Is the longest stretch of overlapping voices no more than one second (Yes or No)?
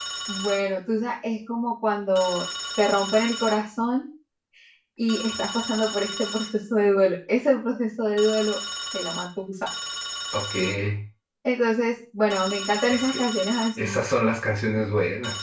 Yes